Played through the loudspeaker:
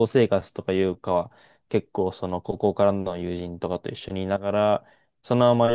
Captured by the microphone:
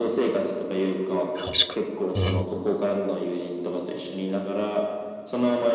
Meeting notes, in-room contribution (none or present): present